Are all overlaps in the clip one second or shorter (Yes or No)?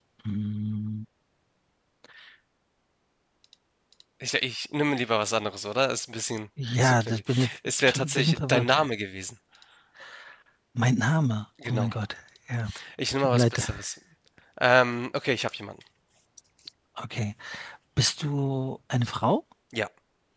No